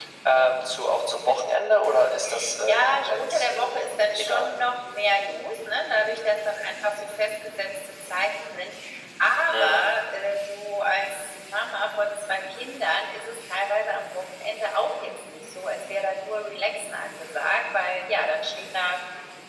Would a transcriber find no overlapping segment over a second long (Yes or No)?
No